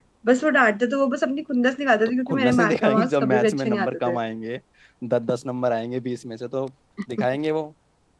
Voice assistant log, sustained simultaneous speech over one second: present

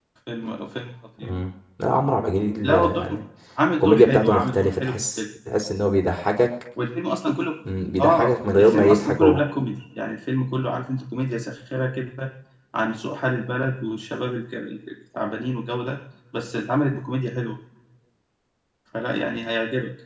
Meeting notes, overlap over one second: present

